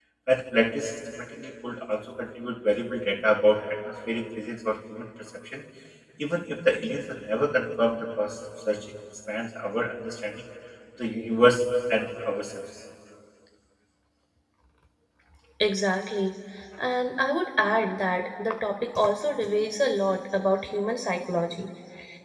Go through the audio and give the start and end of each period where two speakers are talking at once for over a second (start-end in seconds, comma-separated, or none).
none